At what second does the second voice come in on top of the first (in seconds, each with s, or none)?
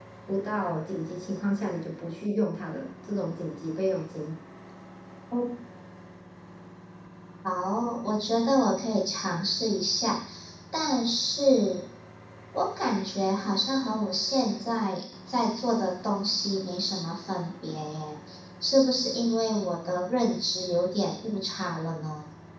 none